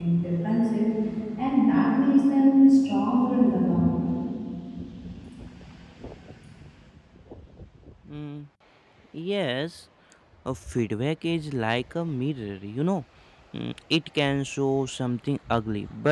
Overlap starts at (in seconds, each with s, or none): none